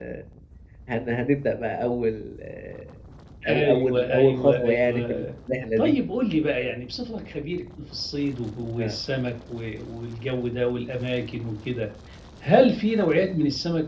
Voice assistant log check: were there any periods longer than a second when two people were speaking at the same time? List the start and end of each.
3.5-5.2

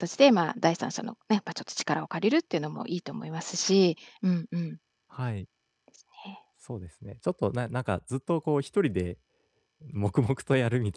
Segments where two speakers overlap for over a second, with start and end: none

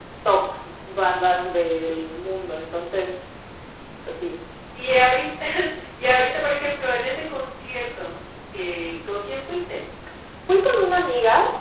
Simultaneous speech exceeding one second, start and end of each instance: none

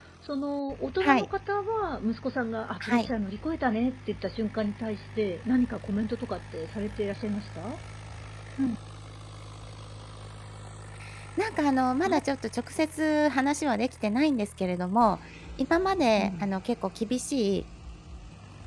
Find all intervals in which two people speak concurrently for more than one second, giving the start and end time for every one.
none

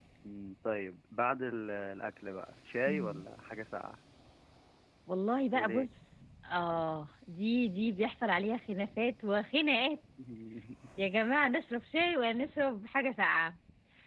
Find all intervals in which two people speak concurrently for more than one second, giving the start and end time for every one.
none

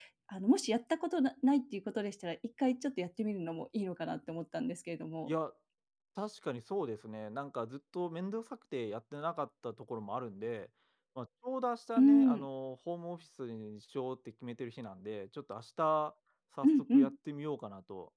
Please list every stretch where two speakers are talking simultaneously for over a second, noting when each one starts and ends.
none

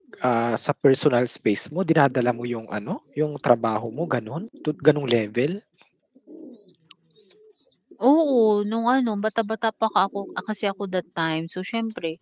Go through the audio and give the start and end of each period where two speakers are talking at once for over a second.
none

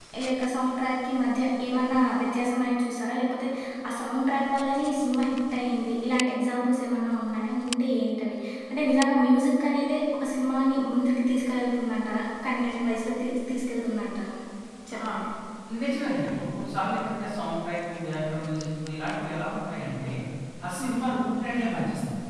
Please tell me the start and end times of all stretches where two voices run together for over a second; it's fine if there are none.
none

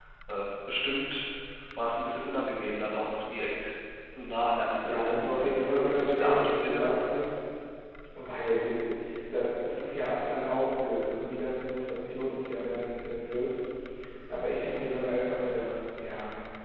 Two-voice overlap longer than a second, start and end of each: 4.8-6.9

